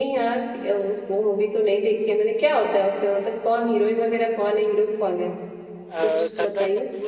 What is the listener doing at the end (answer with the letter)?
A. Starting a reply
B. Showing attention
A